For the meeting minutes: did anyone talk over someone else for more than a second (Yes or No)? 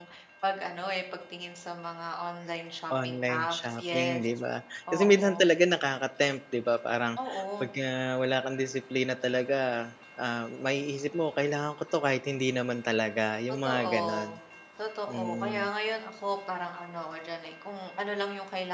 Yes